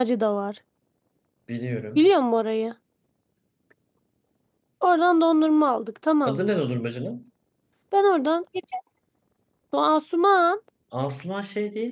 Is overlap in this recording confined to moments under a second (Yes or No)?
Yes